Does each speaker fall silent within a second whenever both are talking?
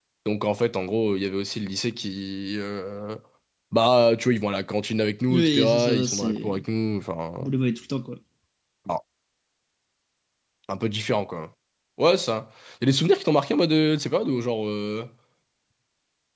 No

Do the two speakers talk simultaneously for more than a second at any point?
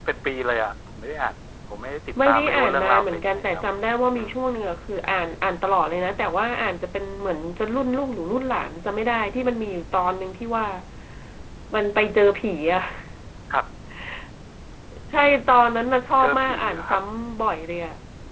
Yes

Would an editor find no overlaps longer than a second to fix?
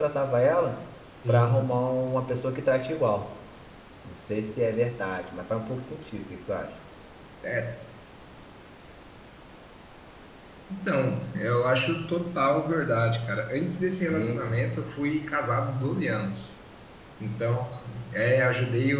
Yes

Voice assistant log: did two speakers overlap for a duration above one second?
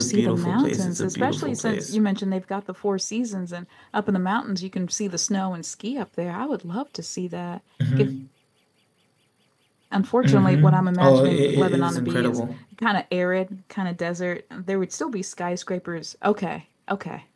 Yes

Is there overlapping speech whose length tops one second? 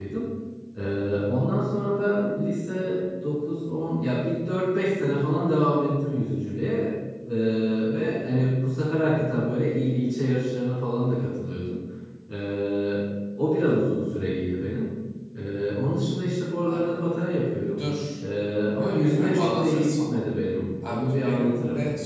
Yes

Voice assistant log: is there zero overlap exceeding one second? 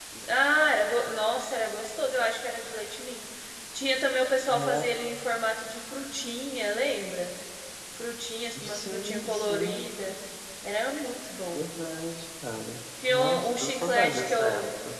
No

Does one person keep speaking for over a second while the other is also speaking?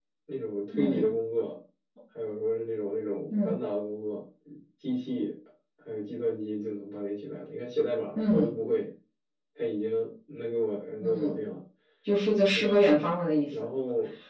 No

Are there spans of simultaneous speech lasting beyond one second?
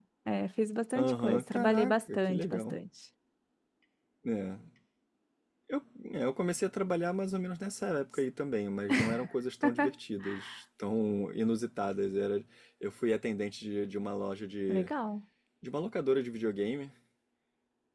Yes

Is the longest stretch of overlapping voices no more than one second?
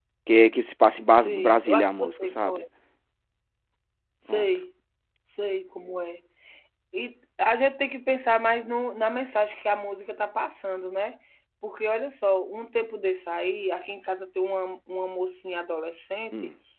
No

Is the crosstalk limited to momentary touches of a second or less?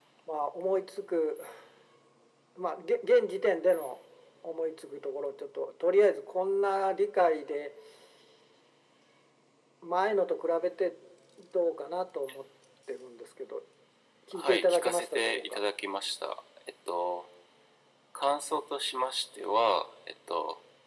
No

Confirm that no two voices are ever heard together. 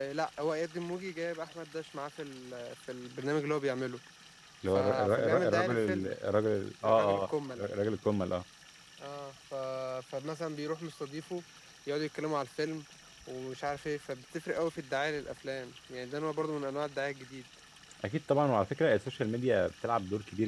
No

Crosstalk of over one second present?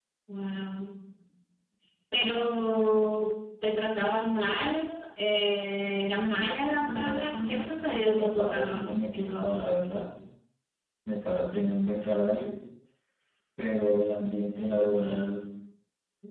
Yes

